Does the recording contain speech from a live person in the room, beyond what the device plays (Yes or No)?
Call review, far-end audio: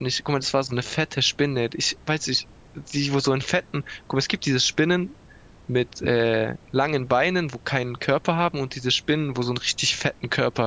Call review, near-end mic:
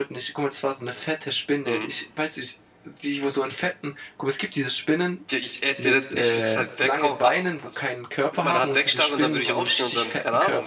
Yes